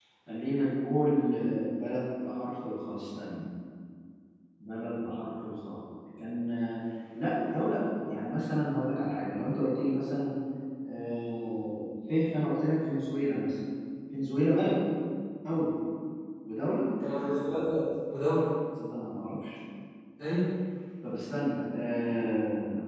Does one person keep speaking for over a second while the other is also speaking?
No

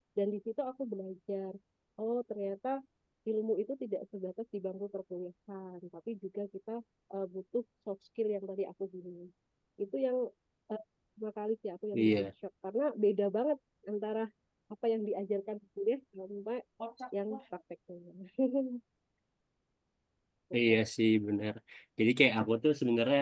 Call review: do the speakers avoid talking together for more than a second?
Yes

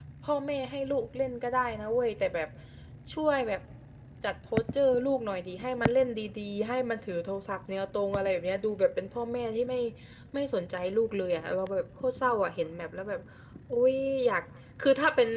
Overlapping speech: No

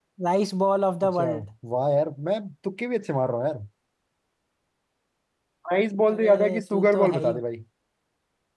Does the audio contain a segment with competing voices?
Yes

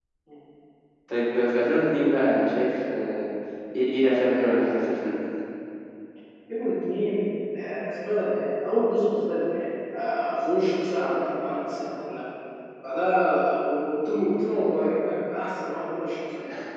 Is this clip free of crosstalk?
Yes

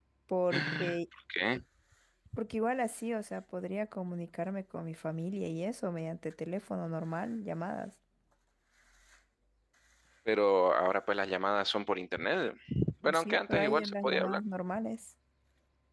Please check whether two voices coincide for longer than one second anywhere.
Yes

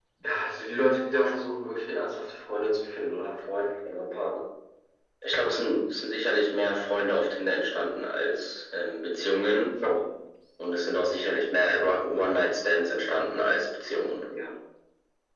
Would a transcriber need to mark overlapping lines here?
No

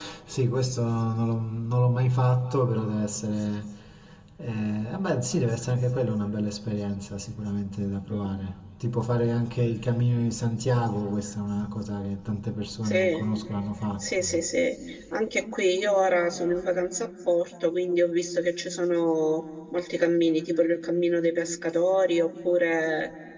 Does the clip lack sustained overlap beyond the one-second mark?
Yes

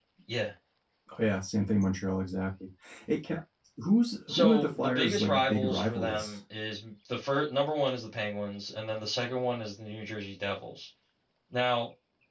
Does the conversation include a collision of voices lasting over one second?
Yes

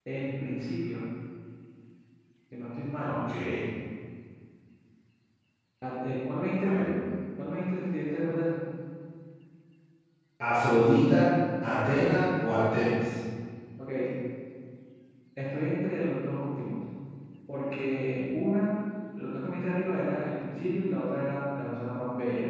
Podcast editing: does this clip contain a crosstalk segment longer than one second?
No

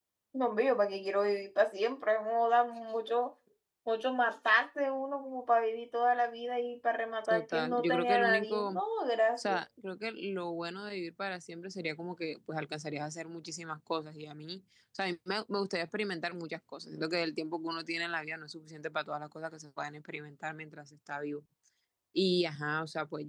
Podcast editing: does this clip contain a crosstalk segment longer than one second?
Yes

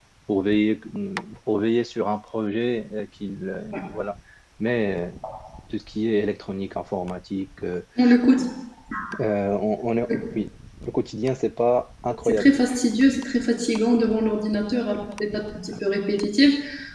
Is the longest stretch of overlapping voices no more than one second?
Yes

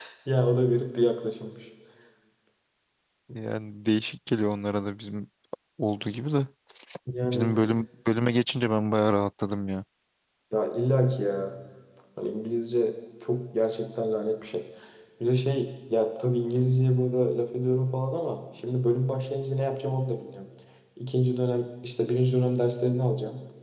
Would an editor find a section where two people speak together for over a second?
No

